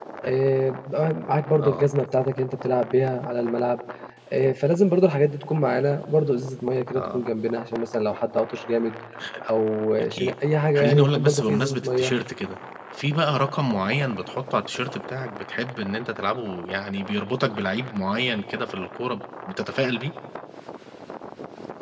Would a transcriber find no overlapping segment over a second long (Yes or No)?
No